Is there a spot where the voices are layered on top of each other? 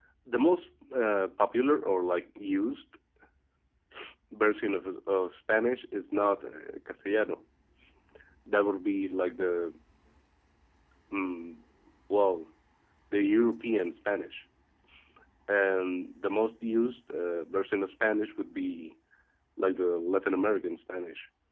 No

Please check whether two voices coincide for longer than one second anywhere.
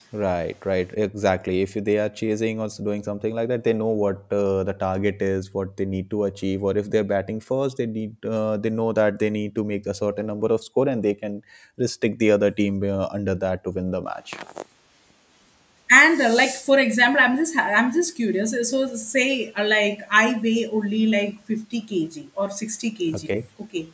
No

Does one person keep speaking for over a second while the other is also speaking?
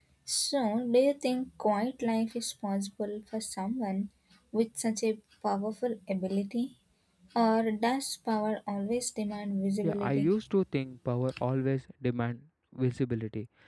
No

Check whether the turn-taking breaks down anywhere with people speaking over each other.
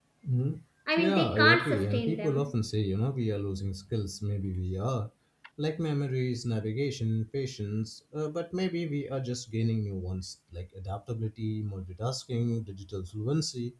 Yes, from 1.0 s

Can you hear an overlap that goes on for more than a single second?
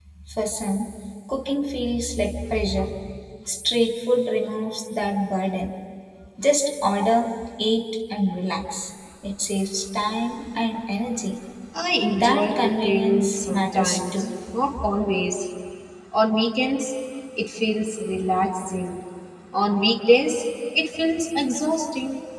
Yes, from 12.1 s

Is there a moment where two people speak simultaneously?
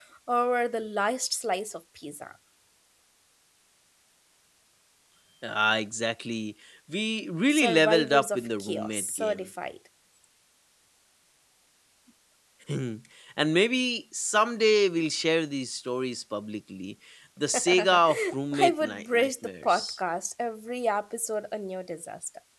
Yes, from 7.5 s

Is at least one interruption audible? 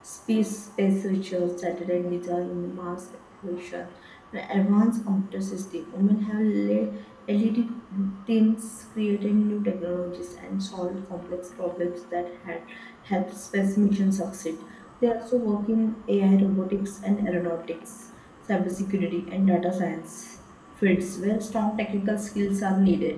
No

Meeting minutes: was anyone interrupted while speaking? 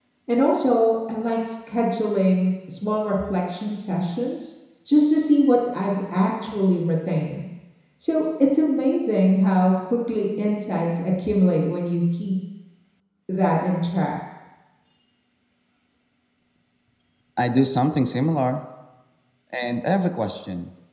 No

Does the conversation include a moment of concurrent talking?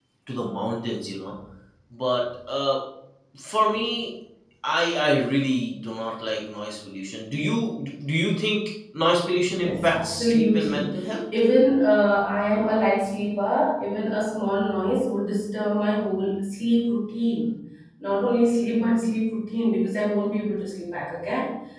Yes, from 9.6 s

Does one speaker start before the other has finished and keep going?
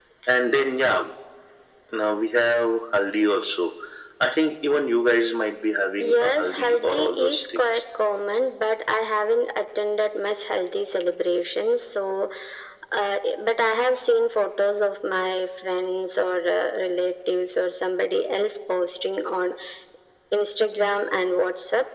Yes, from 6.0 s

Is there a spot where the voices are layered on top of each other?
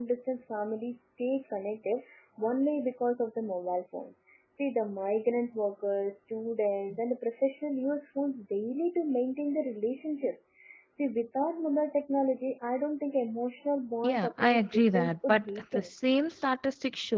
Yes, from 14.0 s

